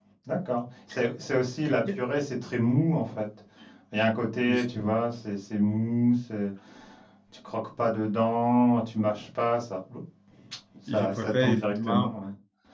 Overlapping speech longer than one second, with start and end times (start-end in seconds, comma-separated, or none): 10.9-12.1